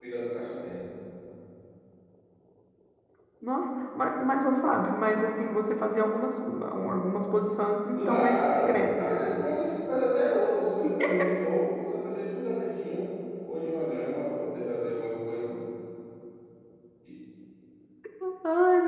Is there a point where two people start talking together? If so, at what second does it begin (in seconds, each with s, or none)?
8.0 s